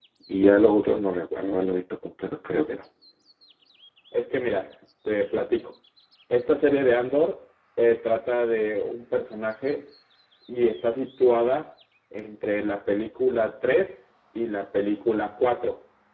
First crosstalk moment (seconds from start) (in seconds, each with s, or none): none